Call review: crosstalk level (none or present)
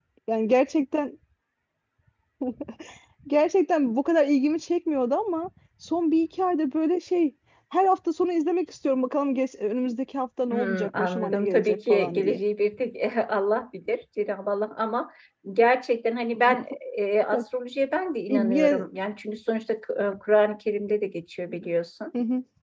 present